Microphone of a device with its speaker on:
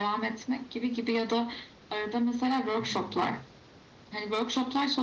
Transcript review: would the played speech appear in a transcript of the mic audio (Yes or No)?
Yes